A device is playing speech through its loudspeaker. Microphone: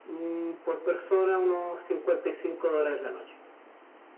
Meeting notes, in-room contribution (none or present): none